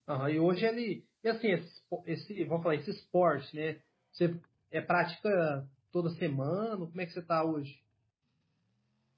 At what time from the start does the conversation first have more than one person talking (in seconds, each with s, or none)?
none